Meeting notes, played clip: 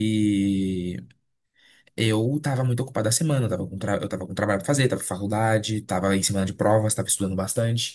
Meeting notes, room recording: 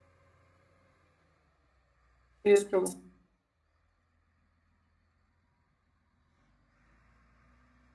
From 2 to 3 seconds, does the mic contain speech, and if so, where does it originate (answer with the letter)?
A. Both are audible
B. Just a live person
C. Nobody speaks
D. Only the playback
B